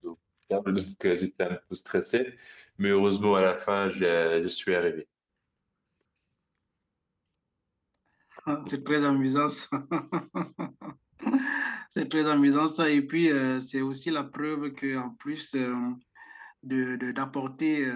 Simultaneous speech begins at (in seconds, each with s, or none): none